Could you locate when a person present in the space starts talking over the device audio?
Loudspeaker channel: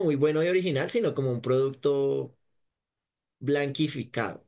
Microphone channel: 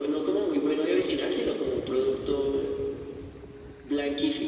none

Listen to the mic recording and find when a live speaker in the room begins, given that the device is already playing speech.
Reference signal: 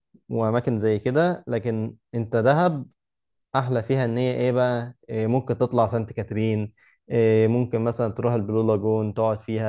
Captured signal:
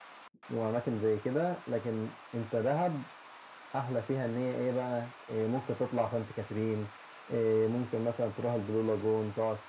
none

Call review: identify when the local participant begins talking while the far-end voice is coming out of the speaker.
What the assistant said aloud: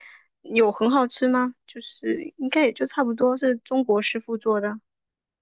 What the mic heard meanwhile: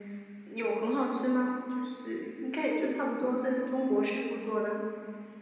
none

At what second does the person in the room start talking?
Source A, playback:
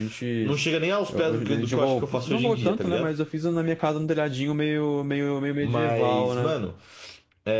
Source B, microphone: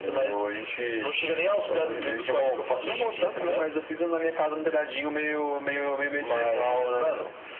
none

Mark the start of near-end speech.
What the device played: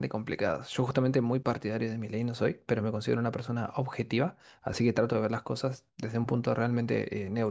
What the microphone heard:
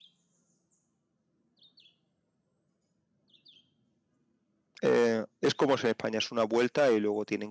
4.8 s

